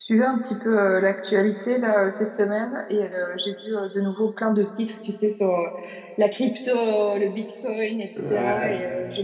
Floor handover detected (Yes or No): No